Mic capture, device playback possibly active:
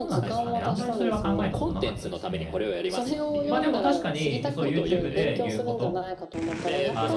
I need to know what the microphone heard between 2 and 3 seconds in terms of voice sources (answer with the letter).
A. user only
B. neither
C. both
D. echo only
C